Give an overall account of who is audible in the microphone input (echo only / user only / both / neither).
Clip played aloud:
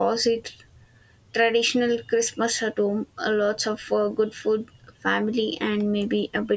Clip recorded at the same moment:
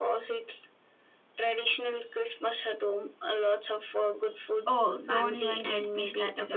both